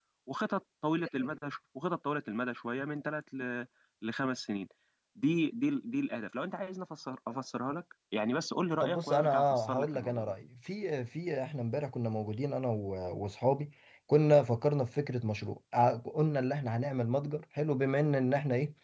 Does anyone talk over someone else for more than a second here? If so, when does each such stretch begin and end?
8.8-10.3

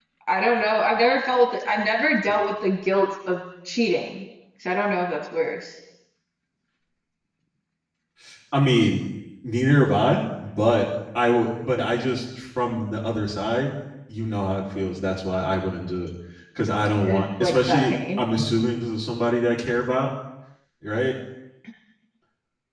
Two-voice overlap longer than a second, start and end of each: 17.0-18.2

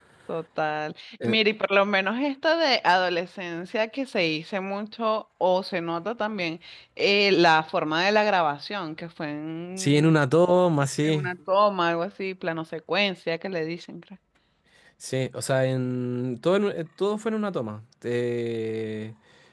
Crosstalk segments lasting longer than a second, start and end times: none

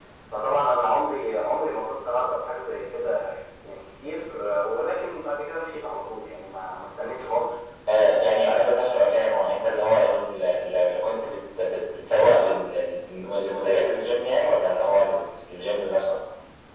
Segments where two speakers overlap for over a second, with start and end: none

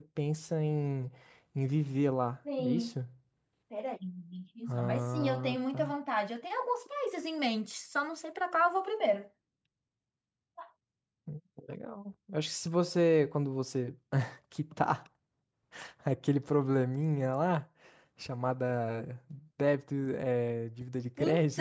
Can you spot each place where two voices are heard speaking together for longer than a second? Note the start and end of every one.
4.7-5.9

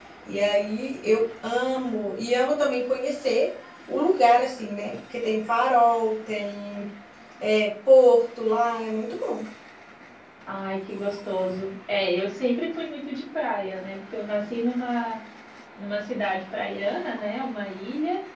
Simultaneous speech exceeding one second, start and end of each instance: none

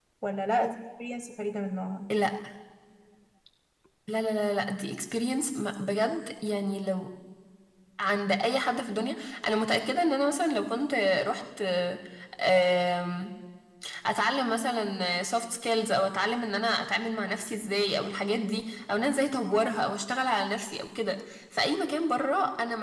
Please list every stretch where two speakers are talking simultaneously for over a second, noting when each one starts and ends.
none

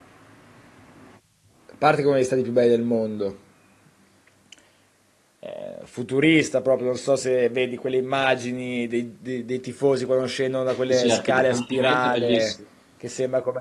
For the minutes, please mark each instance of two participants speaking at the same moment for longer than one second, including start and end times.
10.9-12.5

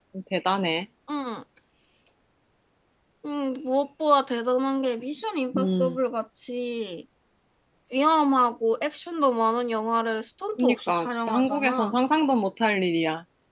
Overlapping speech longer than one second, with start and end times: 10.6-11.9

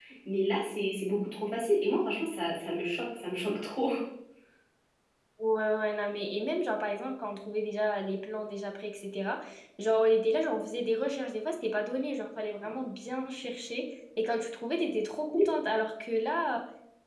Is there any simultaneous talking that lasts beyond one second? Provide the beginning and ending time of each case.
none

